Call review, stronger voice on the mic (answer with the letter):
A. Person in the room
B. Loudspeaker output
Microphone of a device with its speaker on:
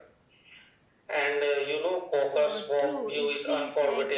B